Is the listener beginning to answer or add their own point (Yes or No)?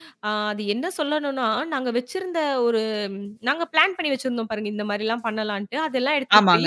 No